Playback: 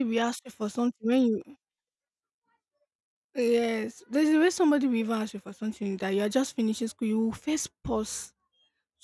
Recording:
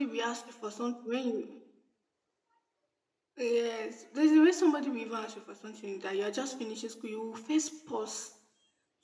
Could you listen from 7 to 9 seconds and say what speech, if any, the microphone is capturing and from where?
echo only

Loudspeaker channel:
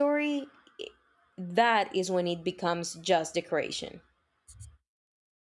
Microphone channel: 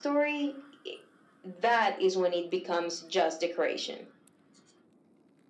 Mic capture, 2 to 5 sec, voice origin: echo only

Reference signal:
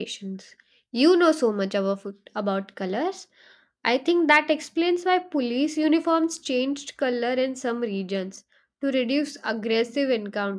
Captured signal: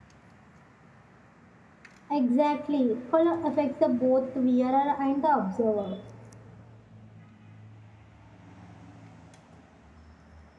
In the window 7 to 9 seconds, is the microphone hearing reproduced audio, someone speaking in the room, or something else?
neither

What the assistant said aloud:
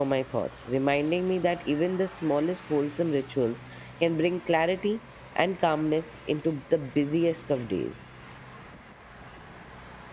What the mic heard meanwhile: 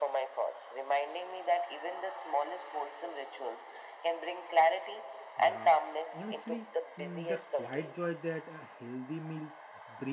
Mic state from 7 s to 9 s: both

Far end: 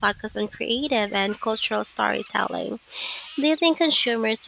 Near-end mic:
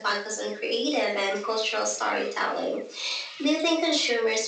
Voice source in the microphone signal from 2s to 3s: echo only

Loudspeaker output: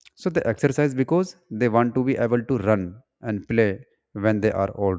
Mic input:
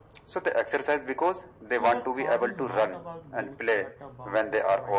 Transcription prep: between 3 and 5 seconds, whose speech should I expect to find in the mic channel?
both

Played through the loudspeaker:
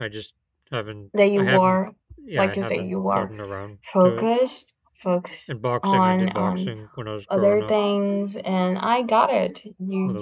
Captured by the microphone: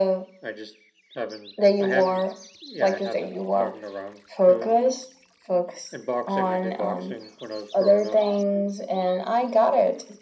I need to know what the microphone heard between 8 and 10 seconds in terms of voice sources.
echo only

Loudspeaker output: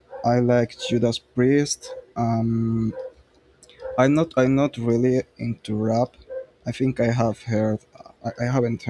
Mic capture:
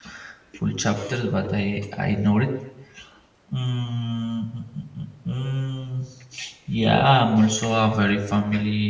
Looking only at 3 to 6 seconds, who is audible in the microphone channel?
user only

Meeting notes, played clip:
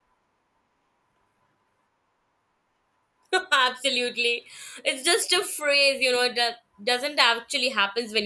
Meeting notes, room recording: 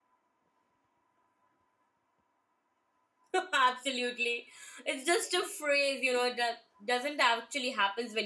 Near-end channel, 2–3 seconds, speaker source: neither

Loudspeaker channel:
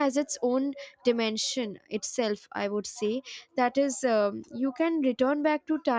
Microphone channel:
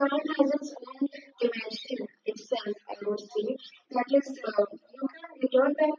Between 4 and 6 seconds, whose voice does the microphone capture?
echo only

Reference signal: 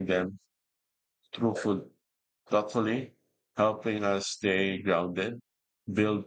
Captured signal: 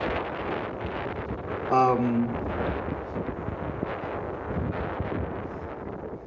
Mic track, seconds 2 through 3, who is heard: user only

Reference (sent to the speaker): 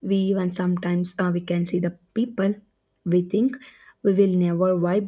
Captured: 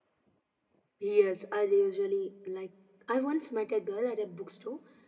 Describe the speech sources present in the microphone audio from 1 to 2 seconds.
user only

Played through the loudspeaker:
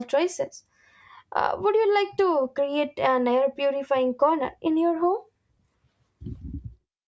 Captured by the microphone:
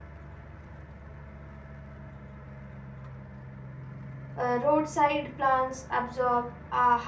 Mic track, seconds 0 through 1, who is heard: neither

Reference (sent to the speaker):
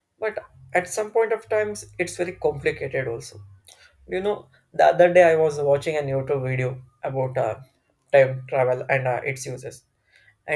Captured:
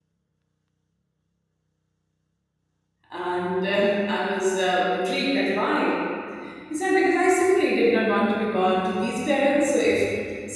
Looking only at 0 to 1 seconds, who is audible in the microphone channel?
neither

